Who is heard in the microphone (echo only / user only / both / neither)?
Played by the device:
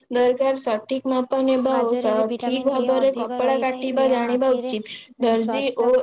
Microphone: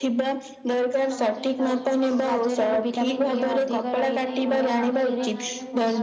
both